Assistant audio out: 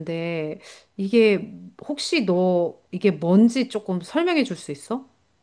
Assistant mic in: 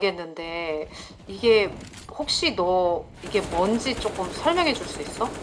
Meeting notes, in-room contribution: none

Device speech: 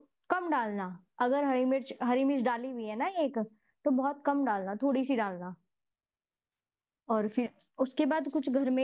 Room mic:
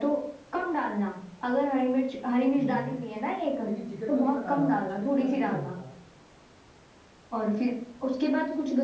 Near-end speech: present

